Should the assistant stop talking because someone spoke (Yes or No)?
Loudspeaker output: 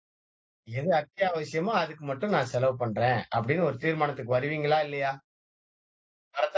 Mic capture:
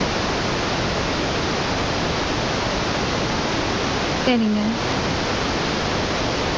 Yes